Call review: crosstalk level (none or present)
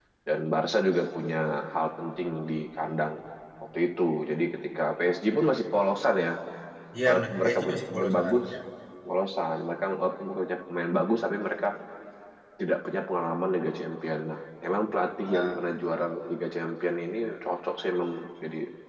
present